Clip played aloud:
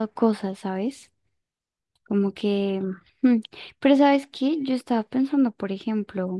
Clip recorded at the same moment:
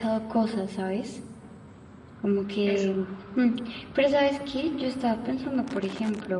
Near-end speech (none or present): present